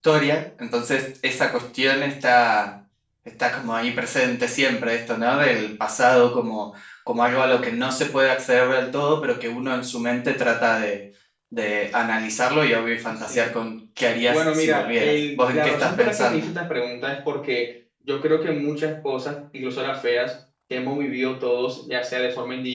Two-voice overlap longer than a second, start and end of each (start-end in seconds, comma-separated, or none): 14.3-16.5